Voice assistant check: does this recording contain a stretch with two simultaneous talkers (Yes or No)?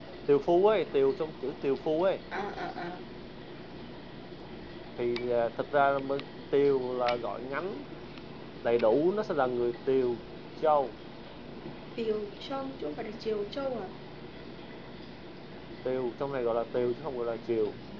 No